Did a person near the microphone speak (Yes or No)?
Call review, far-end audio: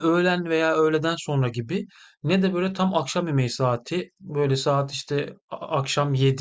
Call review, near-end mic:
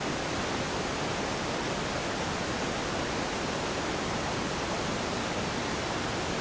No